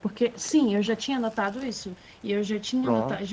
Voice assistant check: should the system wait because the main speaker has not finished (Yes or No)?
Yes